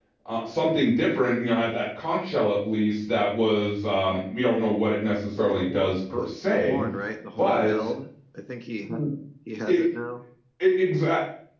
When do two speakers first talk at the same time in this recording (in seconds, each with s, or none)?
5.4 s